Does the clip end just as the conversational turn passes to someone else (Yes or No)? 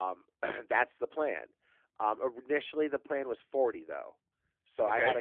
No